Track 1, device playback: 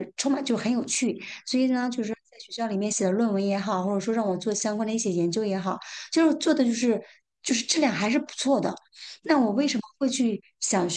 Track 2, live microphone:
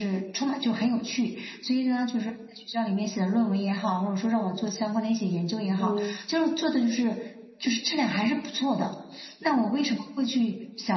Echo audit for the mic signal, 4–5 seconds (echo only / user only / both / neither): echo only